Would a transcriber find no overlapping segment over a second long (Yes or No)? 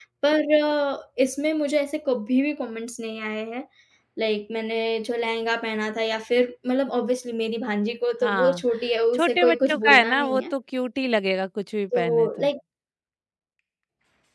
No